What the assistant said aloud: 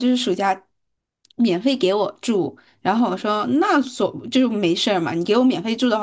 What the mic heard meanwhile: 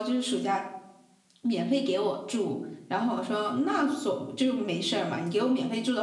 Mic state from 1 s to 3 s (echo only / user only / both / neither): echo only